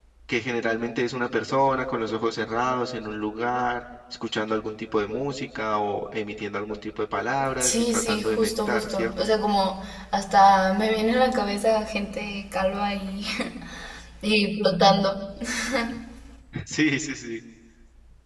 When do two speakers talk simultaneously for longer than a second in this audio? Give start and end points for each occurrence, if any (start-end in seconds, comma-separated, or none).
7.6-9.3